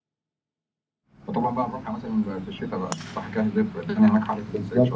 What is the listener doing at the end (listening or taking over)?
taking over